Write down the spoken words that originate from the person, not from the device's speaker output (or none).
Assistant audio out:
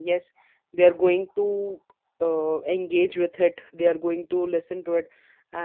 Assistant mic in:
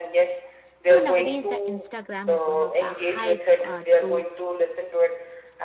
So, nowadays, the Instagram is one of the hype uh, to